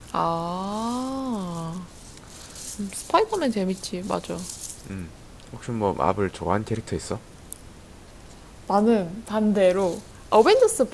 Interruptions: none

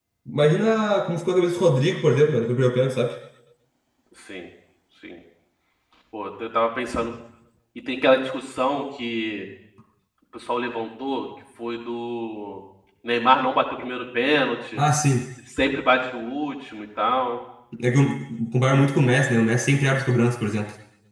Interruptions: none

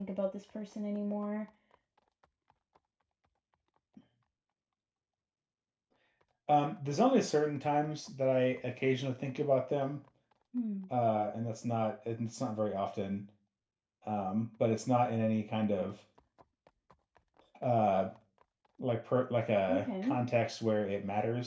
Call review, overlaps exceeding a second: none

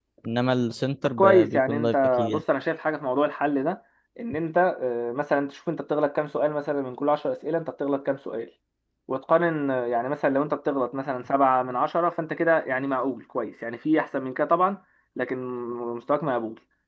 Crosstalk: present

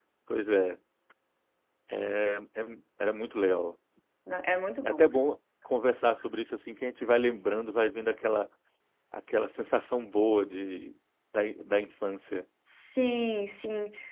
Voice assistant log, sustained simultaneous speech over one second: none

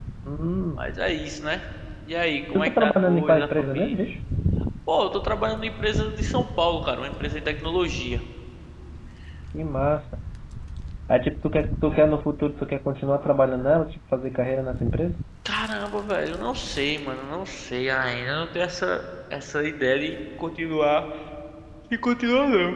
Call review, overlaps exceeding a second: present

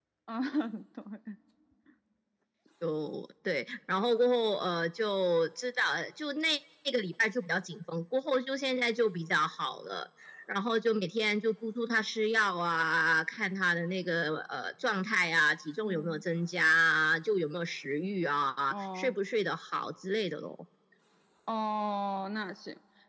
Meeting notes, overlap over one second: none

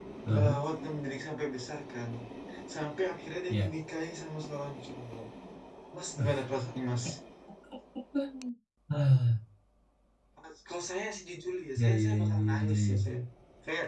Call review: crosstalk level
present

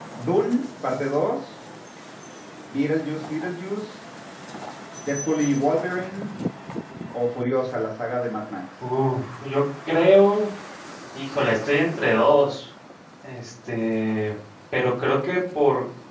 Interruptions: none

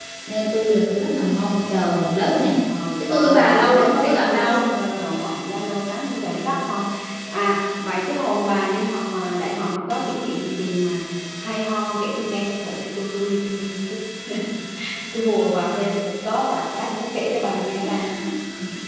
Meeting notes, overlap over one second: present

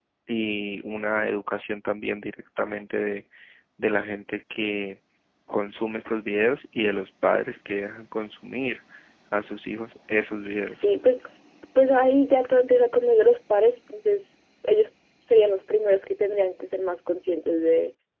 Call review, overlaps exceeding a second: none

